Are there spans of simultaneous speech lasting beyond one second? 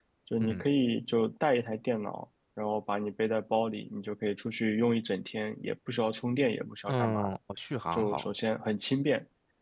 No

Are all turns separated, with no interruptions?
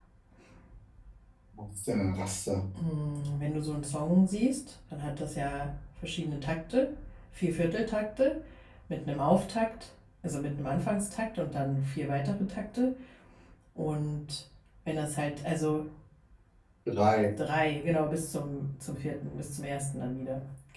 Yes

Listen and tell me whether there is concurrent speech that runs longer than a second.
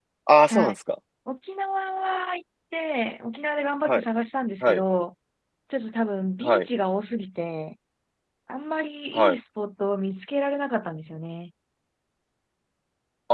No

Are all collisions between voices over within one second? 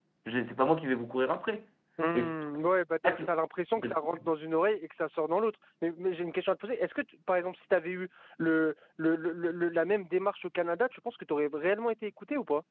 Yes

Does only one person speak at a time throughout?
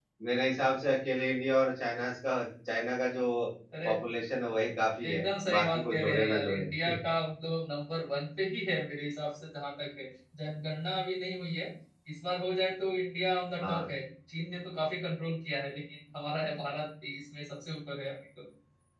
No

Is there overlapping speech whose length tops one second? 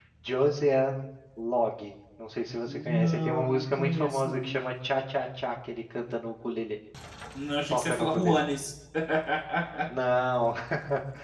Yes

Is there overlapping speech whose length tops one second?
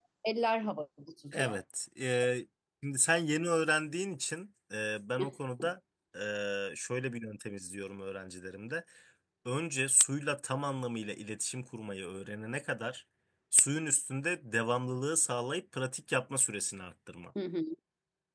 No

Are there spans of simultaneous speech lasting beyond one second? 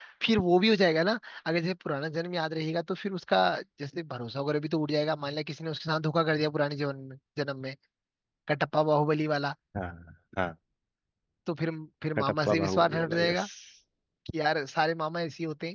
Yes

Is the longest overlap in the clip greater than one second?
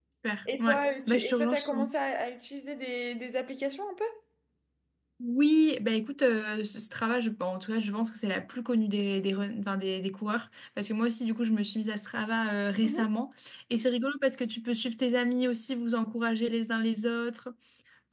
Yes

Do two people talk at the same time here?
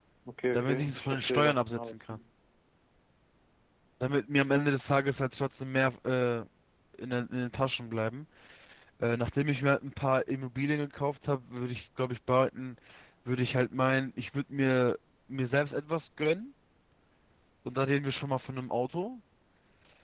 Yes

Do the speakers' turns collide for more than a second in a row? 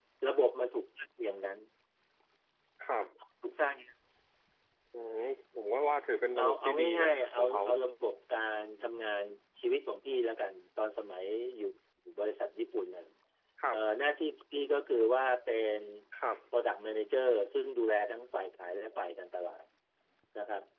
Yes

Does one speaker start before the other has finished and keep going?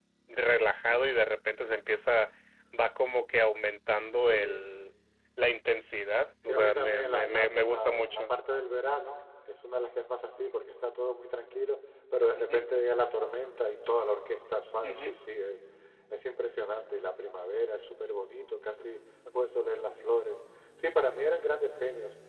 Yes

